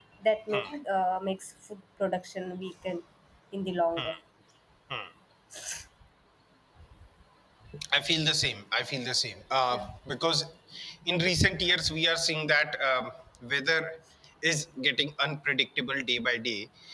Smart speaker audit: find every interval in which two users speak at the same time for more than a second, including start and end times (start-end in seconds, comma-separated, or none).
none